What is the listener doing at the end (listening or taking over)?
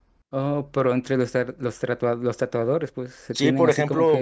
taking over